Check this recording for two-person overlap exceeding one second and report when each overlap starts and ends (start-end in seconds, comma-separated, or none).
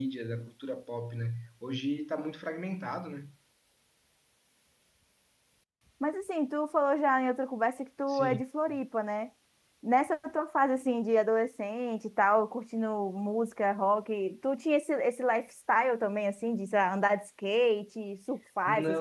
none